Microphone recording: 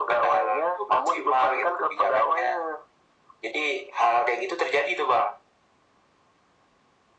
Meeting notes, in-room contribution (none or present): none